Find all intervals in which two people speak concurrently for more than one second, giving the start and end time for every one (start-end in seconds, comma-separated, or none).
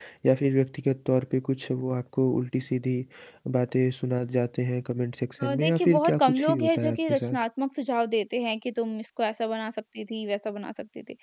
5.4-7.4